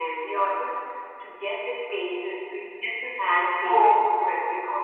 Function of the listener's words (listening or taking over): listening